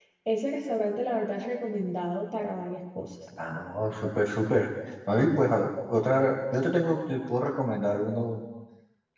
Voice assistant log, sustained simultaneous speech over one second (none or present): none